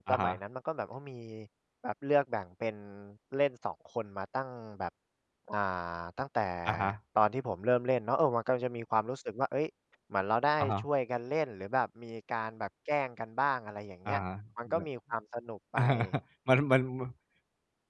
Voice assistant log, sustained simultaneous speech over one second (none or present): none